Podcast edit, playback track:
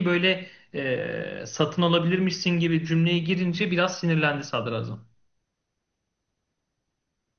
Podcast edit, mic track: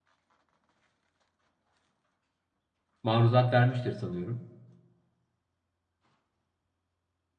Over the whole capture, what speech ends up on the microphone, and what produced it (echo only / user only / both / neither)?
user only